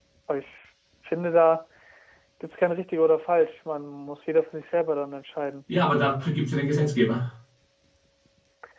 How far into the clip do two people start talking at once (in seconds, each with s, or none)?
none